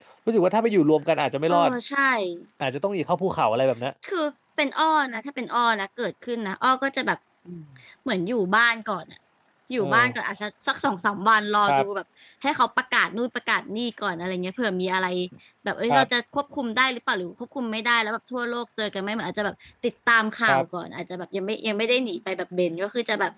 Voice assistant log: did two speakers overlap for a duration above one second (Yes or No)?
No